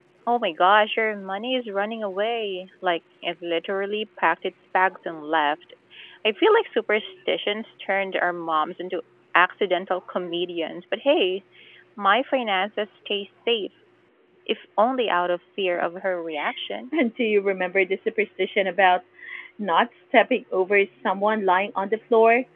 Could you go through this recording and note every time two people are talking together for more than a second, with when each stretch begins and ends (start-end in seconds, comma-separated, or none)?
none